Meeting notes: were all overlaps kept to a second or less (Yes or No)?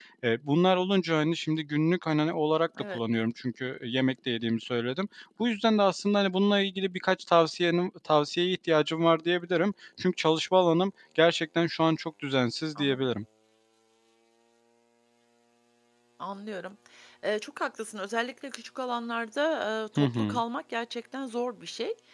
Yes